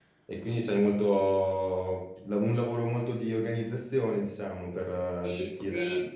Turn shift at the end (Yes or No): Yes